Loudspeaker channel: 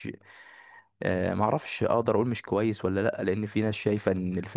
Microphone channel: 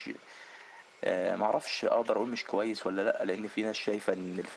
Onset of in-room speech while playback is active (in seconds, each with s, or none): none